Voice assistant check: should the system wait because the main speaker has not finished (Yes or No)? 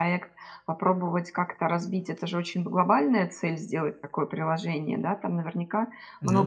Yes